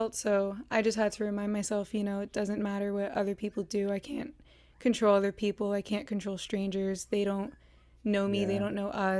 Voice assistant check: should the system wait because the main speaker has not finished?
Yes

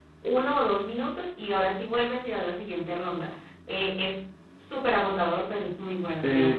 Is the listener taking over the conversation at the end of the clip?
Yes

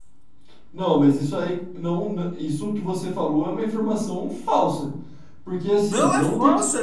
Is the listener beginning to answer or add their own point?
Yes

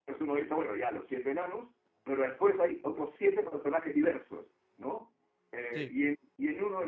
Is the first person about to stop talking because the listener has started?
No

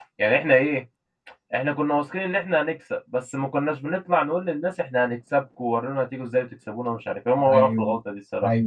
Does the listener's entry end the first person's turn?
Yes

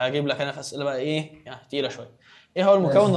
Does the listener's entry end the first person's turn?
No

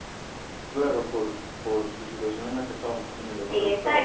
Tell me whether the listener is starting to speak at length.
Yes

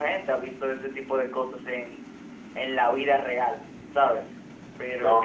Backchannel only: Yes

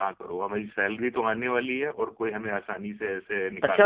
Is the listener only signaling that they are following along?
No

